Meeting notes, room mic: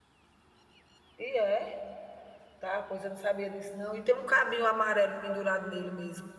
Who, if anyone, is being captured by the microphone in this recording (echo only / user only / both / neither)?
user only